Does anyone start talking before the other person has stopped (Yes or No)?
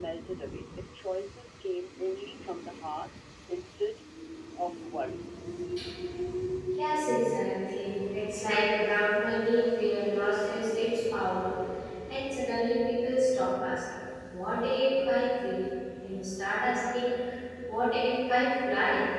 No